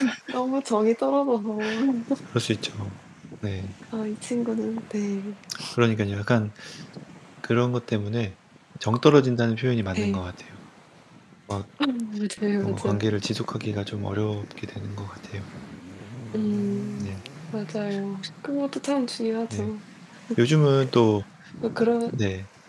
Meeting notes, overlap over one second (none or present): none